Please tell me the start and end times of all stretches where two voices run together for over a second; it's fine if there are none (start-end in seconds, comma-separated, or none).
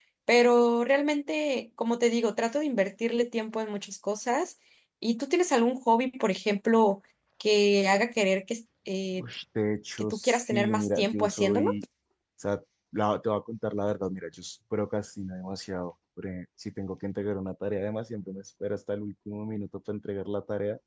10.0-11.7